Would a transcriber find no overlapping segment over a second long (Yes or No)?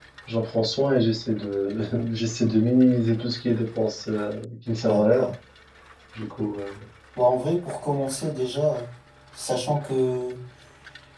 Yes